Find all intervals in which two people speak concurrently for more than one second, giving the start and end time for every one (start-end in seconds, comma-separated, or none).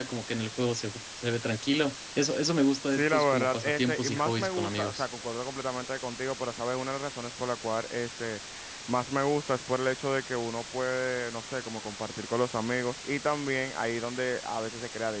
2.9-5.0